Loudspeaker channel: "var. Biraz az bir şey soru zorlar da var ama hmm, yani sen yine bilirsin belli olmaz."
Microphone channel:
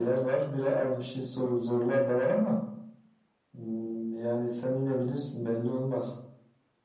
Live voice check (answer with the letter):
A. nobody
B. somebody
A